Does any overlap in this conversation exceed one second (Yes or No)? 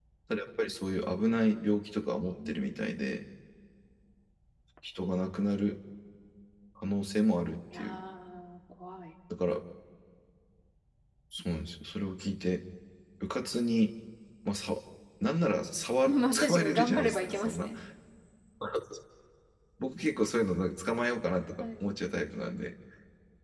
Yes